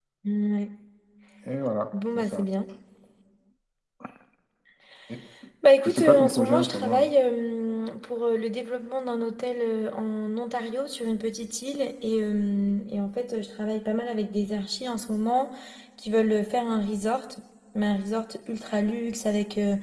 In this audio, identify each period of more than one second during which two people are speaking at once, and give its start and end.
5.8-7.1

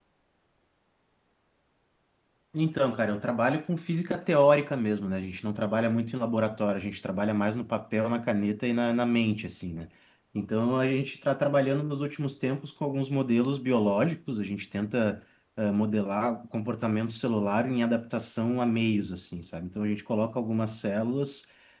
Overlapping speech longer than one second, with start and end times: none

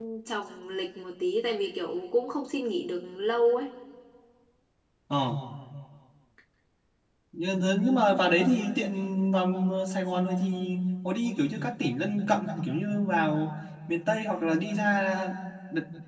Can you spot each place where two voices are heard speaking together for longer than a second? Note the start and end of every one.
none

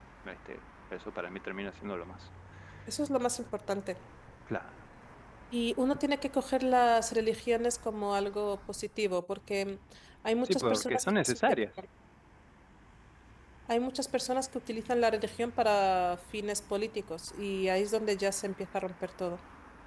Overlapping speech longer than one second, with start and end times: 10.4-11.6

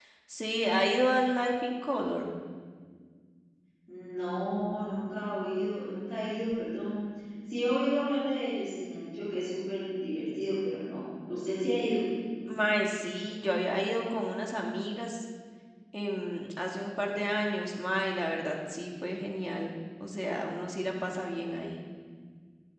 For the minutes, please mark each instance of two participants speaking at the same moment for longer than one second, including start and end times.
none

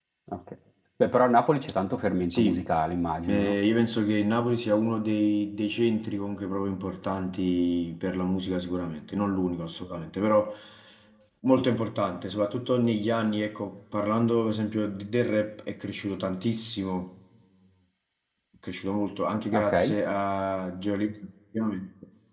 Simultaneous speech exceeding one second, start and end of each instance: none

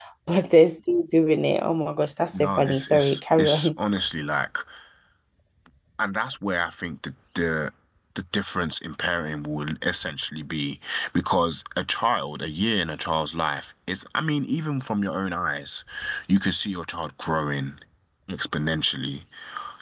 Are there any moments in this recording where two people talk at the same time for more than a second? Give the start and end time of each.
2.3-3.7

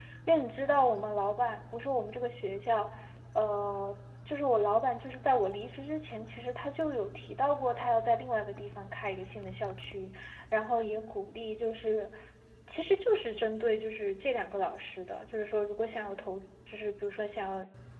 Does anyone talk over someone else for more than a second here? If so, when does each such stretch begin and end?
none

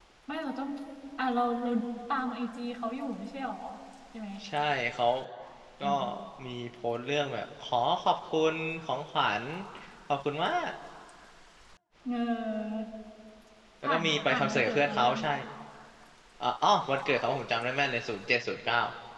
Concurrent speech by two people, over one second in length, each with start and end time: 13.8-15.2

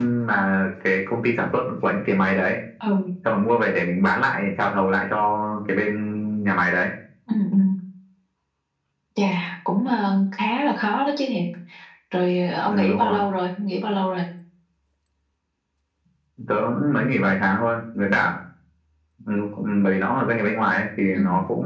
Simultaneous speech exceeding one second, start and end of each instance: none

